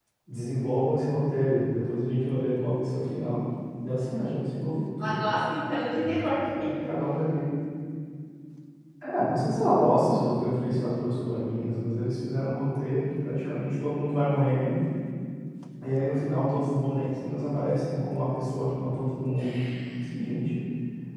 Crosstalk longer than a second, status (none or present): none